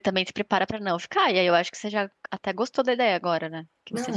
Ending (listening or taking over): taking over